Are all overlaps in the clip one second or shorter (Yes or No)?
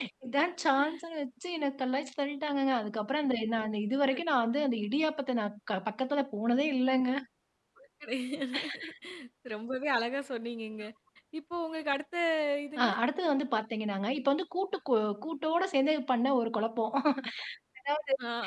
Yes